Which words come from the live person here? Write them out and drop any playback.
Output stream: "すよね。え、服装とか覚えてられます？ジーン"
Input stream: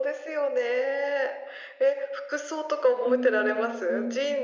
うんうん

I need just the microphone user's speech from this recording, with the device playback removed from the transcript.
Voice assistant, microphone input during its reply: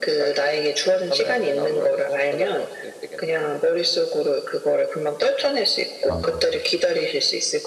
아

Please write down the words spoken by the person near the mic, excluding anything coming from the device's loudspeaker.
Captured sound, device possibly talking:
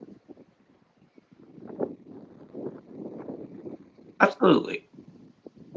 absolutely.

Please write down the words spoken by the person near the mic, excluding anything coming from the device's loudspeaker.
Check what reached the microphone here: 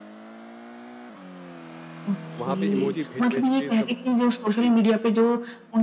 वहाँ पे इमोजी भेज-भेज के सब जी।

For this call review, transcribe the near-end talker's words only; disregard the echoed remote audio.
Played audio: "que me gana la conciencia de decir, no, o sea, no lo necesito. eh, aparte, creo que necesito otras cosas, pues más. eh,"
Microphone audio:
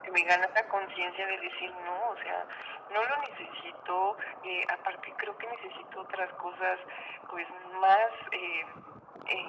none

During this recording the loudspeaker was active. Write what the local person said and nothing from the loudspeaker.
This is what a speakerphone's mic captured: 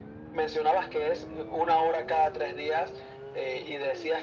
none

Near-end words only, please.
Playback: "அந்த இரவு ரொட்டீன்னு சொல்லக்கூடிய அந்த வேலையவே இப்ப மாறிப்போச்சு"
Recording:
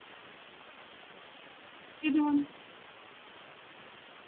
இது வந்து

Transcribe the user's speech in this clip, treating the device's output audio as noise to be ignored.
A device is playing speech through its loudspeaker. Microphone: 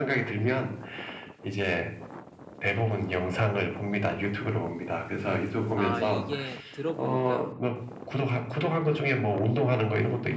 아 이게 들어보니까

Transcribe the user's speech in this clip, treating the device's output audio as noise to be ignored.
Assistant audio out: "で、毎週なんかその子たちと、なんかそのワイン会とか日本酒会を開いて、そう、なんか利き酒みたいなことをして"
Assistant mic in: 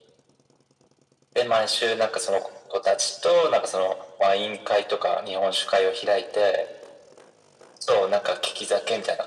none

